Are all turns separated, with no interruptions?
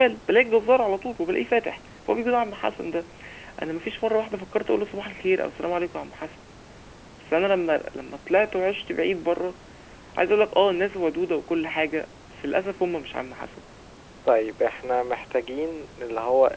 Yes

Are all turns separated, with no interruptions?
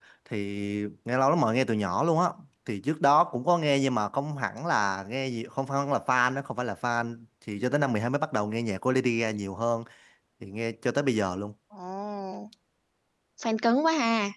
Yes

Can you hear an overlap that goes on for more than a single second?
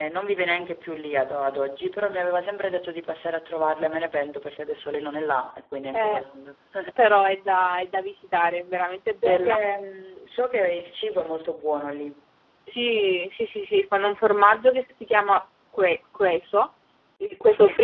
No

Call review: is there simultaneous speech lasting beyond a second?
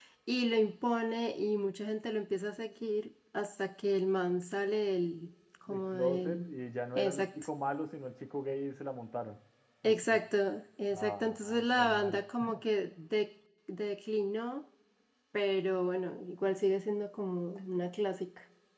Yes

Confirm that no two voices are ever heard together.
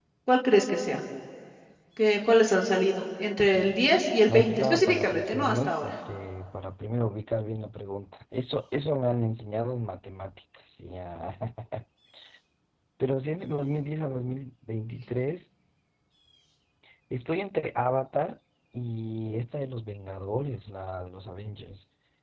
No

